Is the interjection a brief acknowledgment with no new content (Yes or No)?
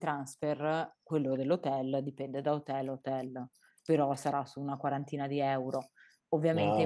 Yes